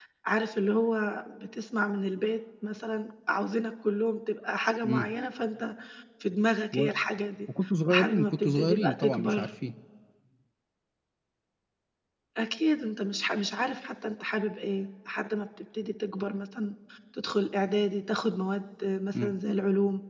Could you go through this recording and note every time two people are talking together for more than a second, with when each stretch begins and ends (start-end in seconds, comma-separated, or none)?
7.9-9.5